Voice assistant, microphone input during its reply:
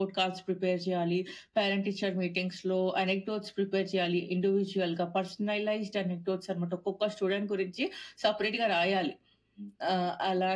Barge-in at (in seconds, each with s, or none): none